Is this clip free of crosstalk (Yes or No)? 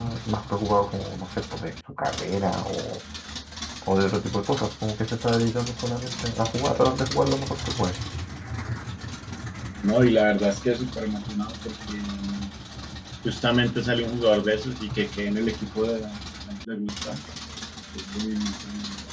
Yes